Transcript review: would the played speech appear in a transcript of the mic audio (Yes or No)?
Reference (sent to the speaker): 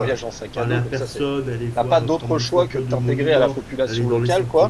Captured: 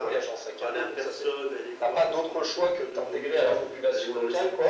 Yes